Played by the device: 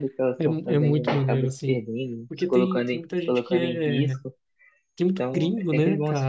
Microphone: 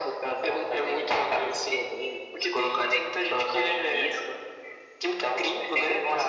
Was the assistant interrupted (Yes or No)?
No